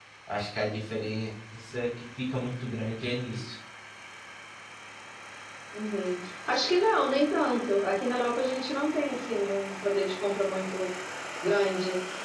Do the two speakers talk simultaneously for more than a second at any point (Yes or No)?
No